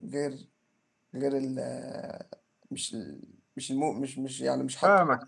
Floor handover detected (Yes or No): Yes